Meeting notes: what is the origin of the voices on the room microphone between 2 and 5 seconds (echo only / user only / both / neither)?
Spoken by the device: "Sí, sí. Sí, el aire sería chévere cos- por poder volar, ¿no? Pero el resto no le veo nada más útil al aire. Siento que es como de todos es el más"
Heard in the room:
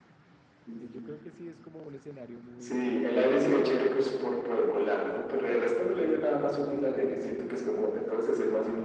both